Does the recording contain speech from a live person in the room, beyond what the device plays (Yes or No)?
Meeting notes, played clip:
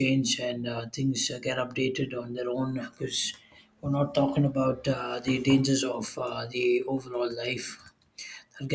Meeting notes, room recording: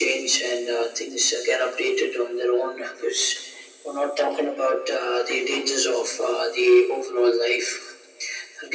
No